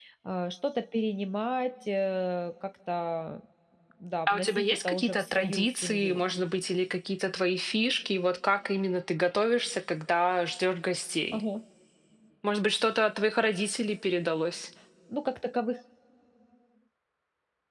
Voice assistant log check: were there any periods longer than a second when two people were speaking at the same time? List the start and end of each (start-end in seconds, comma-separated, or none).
4.3-6.2